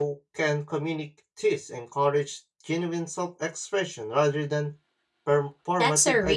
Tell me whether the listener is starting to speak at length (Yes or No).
Yes